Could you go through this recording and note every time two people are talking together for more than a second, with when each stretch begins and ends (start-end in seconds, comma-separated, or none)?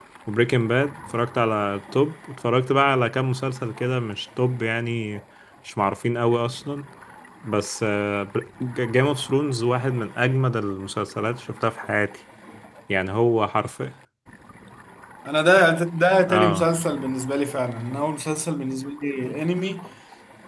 none